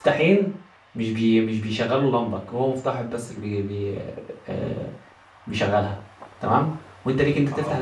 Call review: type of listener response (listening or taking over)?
listening